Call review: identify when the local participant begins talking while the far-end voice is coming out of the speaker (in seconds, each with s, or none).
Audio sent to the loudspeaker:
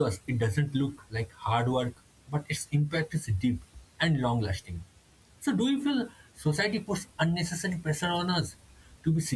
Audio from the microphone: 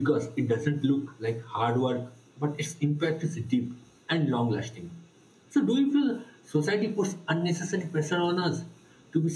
none